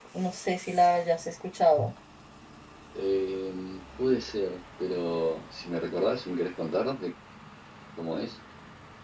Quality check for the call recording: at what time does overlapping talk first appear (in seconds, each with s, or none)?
none